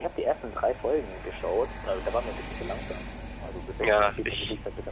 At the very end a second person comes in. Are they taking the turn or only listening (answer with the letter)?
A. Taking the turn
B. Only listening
B